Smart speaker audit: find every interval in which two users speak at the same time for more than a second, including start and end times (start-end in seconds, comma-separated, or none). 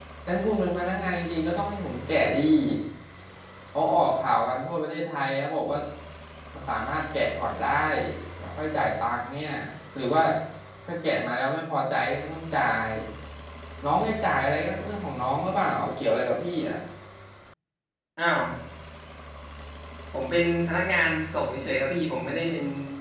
none